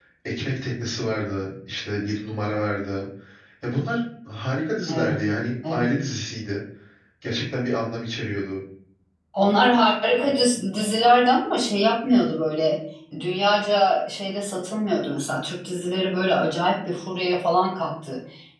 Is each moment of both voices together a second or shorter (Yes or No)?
Yes